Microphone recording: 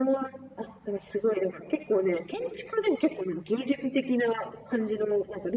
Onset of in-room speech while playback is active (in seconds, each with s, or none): none